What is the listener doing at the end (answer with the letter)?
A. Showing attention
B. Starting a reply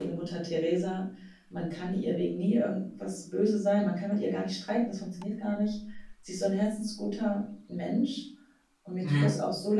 A